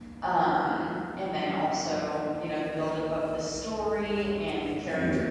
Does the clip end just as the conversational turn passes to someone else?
No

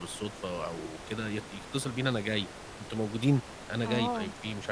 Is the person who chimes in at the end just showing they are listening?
No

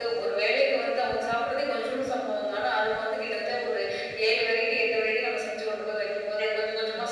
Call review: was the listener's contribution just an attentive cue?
No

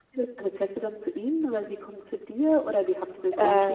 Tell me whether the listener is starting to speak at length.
Yes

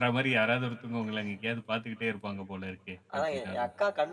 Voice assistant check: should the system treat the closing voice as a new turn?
Yes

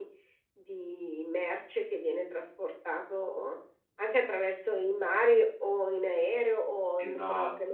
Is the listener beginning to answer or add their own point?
Yes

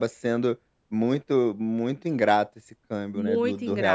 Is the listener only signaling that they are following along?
No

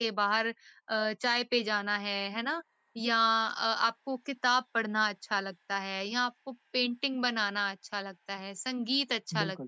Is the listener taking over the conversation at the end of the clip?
No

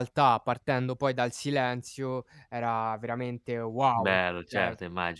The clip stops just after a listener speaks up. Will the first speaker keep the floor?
No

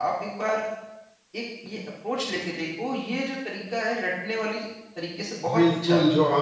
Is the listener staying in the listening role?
No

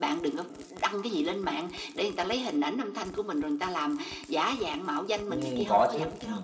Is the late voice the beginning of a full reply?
Yes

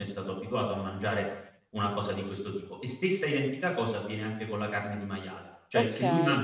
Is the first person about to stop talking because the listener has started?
No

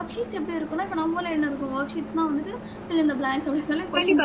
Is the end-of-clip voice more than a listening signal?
Yes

